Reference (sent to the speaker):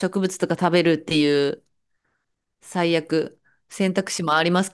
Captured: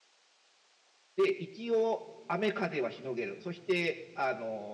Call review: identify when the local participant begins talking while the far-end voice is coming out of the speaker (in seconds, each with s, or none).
1.2 s